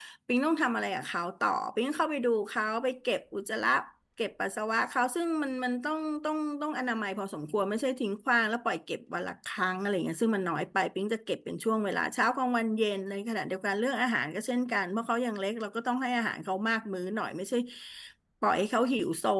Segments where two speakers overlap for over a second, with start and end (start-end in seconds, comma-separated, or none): none